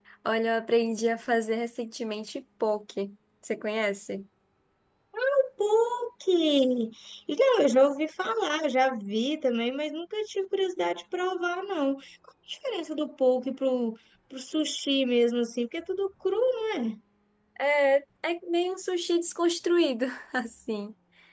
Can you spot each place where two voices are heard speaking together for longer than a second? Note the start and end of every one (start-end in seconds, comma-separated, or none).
none